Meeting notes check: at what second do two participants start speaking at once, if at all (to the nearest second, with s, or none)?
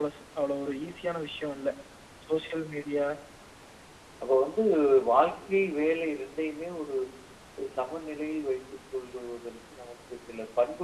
none